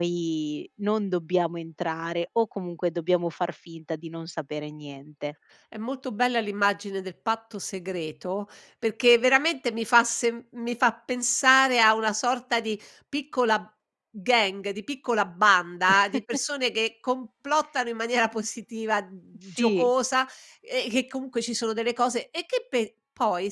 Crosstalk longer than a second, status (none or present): none